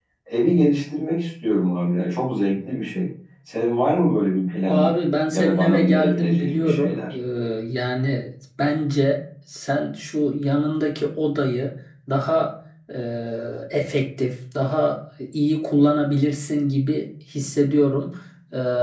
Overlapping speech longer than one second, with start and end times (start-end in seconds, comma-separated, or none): 5.3-7.1